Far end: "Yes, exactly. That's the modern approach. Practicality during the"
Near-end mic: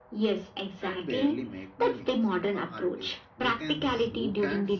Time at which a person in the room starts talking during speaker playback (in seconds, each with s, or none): 0.8 s